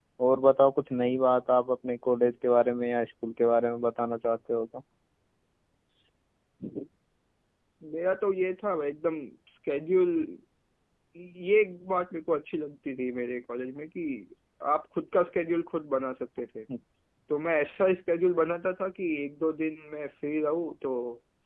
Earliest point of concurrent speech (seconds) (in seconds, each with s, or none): none